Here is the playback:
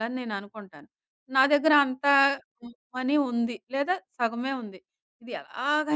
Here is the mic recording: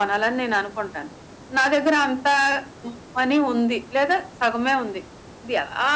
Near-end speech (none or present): none